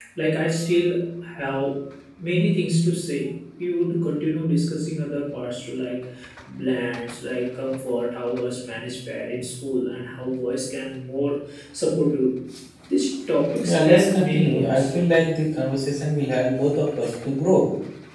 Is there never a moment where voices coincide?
No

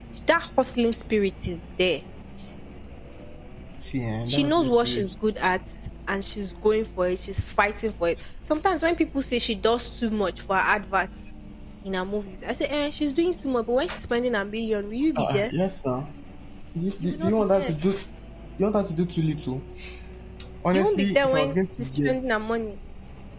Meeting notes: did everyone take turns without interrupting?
No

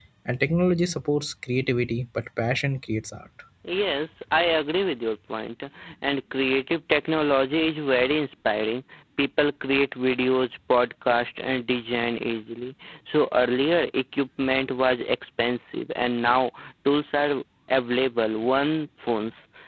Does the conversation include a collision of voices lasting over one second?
No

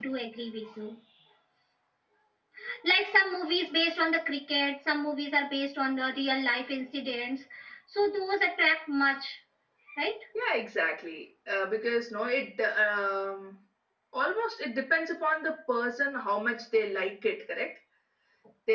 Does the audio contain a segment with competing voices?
No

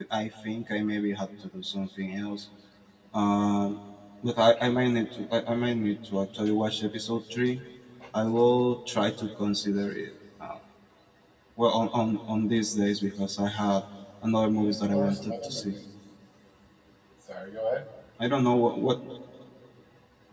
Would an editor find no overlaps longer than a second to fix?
No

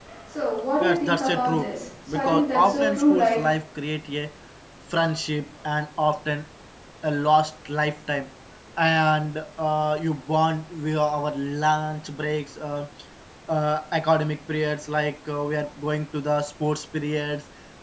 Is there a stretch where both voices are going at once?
Yes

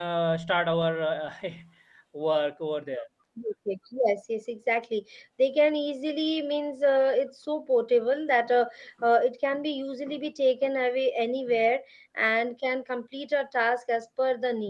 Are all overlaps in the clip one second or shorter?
Yes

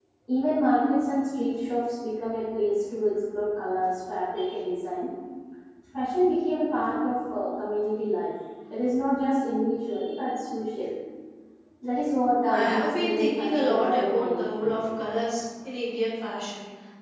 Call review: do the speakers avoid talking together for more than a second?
No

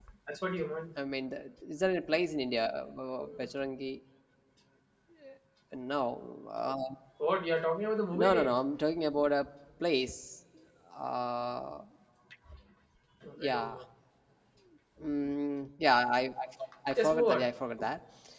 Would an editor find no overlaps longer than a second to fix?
Yes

